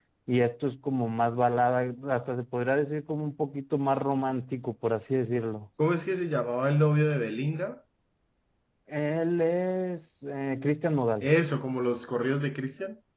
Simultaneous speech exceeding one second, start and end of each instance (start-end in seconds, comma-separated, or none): none